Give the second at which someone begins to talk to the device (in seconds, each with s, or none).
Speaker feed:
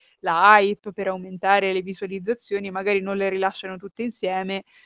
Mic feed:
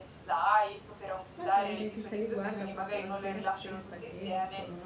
1.3 s